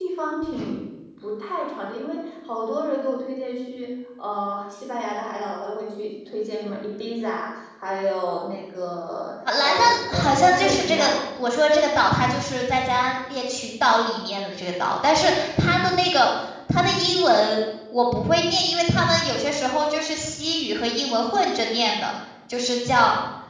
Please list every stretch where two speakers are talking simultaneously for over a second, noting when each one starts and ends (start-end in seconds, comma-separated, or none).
9.6-11.2